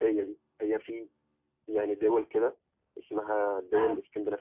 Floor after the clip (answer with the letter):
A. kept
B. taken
A